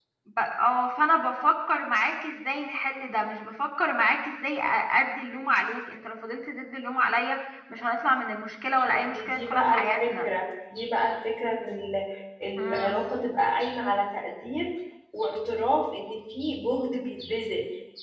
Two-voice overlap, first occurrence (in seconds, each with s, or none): 8.9 s